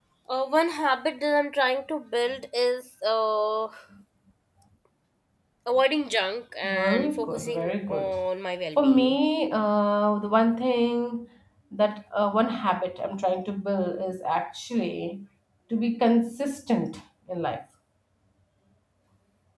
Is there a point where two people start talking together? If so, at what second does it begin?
7 s

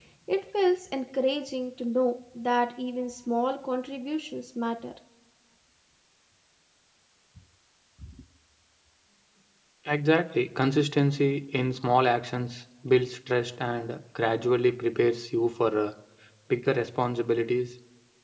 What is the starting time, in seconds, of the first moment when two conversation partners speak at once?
none

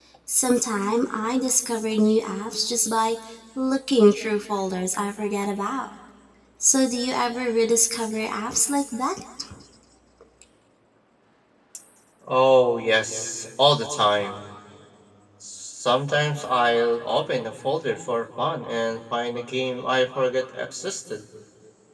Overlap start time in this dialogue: none

